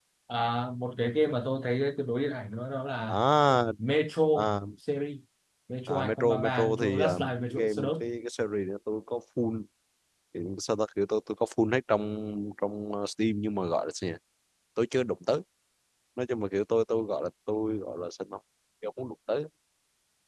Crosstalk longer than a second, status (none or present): present